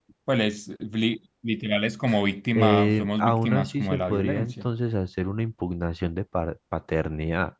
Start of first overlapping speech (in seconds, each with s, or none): 2.6 s